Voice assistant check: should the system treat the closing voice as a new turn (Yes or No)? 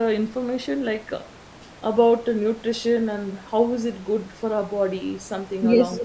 Yes